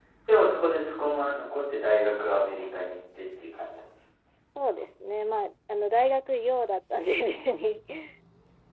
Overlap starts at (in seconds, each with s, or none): none